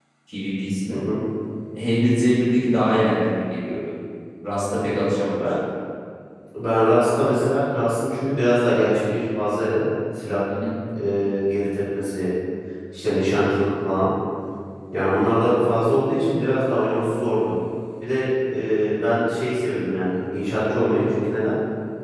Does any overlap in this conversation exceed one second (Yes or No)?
No